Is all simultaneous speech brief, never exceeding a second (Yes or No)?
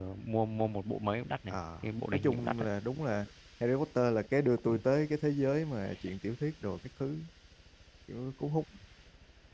Yes